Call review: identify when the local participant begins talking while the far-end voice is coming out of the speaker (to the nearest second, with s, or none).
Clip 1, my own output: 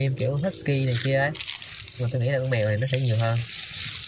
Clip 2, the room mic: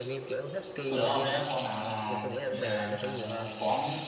1 s